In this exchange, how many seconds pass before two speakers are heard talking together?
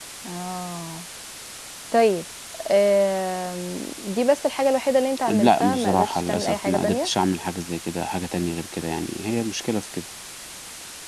5 s

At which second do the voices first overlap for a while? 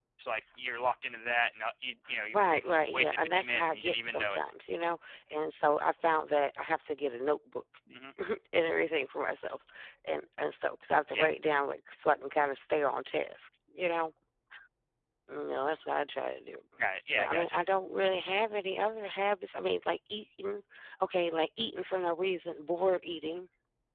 2 s

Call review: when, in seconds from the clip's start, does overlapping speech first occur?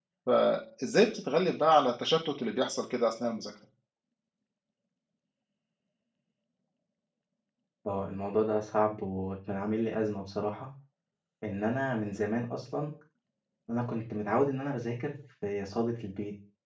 none

